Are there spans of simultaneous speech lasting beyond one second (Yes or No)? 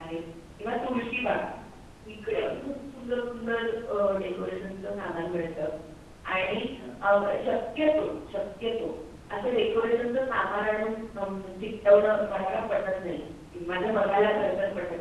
No